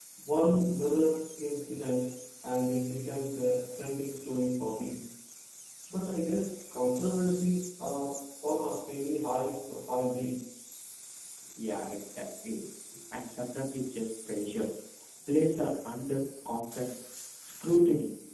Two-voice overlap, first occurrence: none

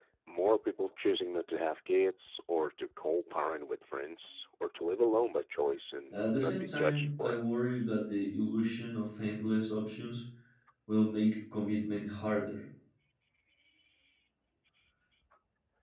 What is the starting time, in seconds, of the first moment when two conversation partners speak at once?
6.1 s

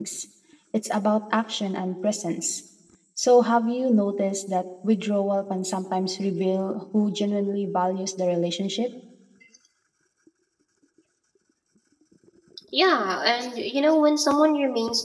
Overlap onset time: none

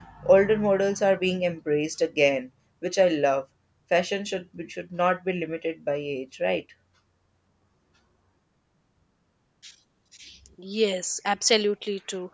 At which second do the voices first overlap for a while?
none

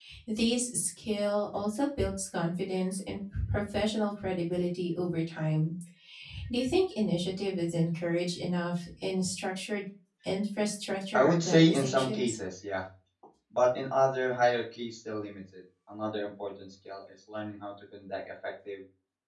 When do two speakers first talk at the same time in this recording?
11.1 s

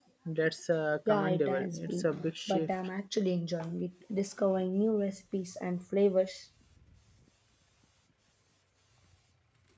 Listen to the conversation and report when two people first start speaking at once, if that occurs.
1.1 s

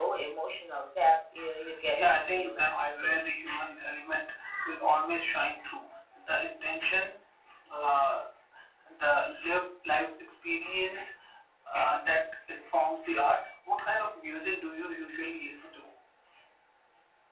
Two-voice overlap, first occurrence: 1.9 s

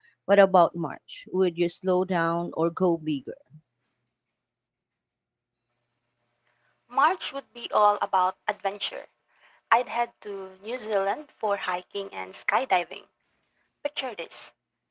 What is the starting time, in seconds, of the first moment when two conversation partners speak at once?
none

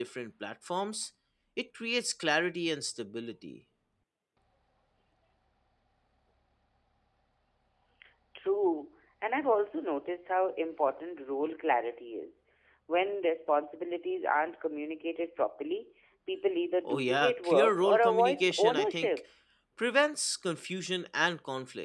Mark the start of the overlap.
16.9 s

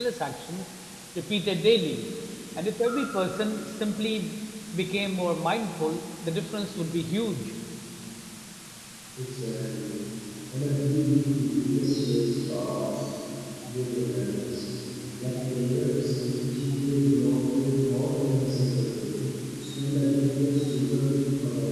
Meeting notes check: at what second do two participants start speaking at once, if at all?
none

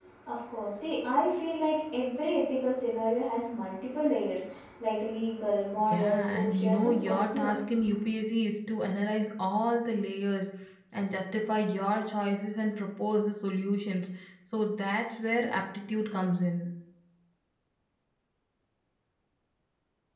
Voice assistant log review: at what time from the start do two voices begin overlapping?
5.8 s

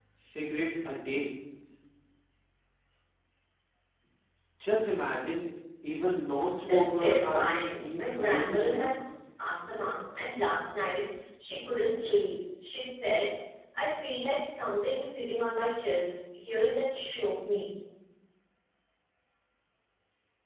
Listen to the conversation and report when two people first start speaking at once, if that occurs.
6.6 s

